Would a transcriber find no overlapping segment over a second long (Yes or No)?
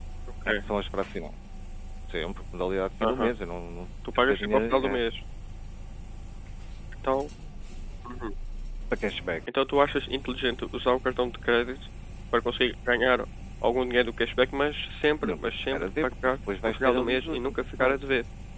No